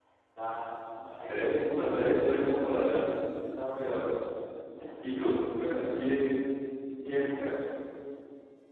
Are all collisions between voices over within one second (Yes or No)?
No